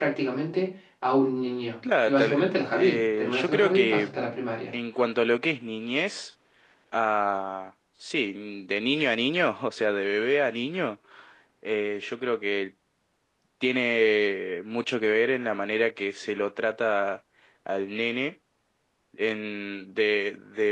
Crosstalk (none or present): present